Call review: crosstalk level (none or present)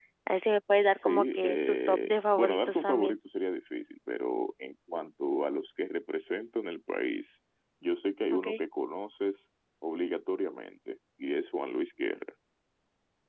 present